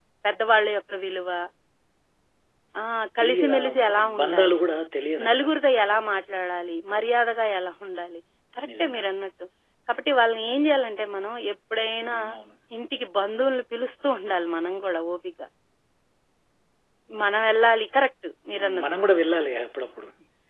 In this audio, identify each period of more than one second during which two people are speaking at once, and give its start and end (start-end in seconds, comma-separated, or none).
3.2-4.6